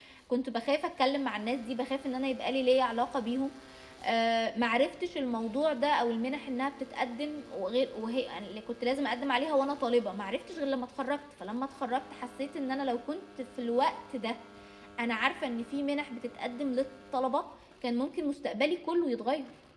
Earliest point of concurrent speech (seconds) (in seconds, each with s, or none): none